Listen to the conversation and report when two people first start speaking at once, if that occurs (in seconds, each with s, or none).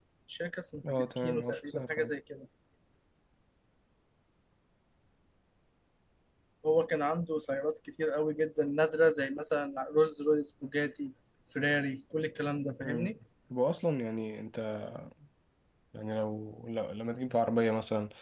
0.9 s